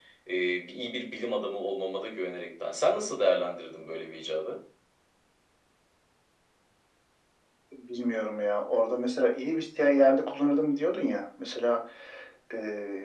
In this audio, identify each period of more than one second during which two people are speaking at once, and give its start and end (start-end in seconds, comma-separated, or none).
none